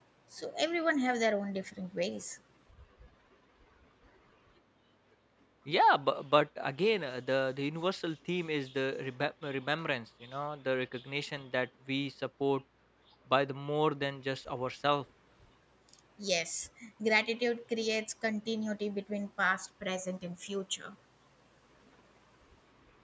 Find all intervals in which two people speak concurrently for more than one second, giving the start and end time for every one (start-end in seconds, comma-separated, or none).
none